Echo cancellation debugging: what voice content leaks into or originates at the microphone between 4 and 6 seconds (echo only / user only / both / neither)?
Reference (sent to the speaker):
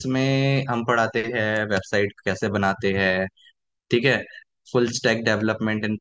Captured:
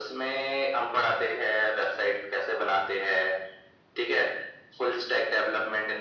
echo only